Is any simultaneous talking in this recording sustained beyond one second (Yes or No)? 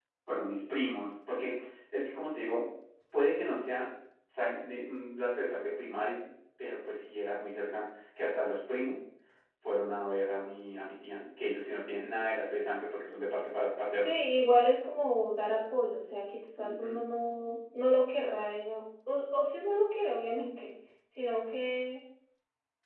No